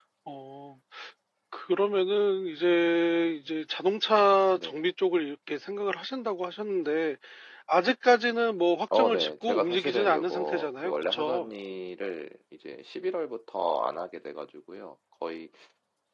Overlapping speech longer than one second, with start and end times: 8.9-11.5

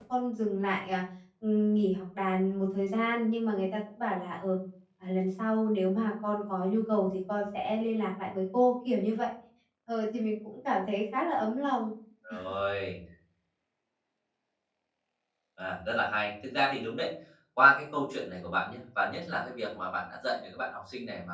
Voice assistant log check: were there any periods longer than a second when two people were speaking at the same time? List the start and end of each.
none

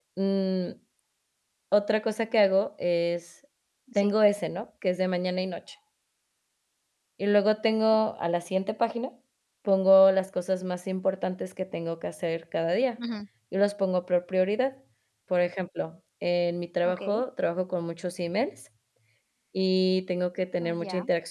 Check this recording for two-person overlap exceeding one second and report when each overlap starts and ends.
none

